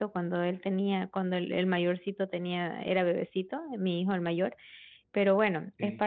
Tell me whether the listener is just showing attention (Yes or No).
Yes